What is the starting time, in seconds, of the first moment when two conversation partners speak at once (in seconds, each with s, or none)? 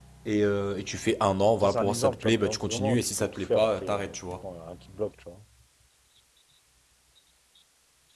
1.6 s